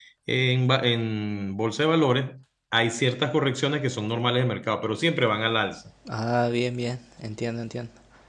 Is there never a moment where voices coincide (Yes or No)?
Yes